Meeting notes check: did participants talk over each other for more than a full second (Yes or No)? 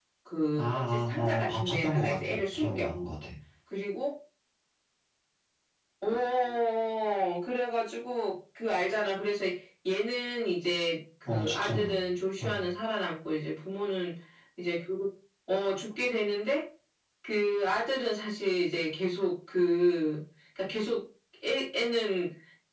Yes